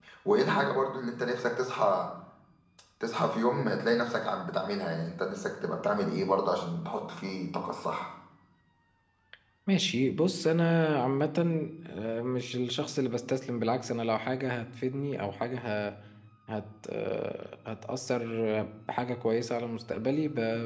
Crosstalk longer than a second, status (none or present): none